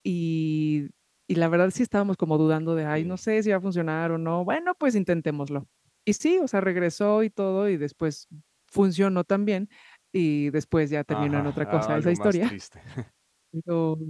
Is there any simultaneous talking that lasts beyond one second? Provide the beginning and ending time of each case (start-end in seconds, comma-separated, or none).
11.1-12.5